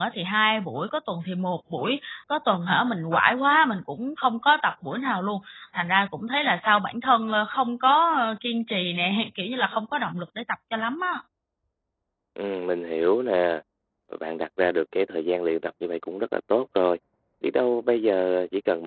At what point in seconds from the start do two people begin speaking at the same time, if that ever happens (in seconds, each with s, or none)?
none